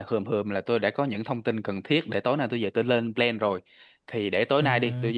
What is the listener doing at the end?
listening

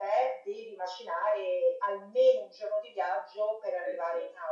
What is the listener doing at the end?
listening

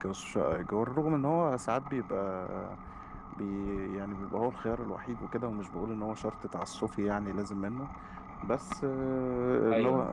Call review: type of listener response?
listening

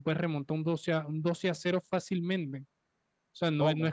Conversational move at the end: listening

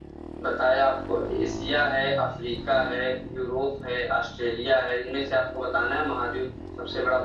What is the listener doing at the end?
taking over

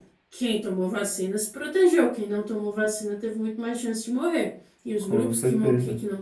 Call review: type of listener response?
listening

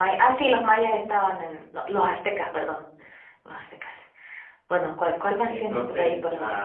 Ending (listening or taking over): taking over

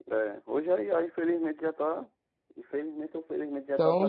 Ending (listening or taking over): taking over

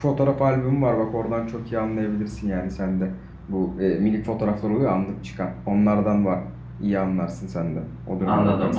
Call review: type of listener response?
taking over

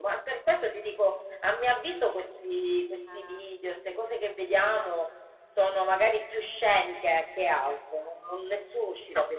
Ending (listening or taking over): taking over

